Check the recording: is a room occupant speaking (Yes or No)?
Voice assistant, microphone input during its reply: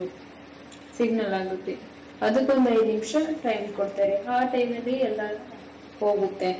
Yes